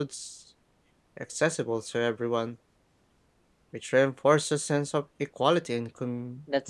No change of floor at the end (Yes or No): No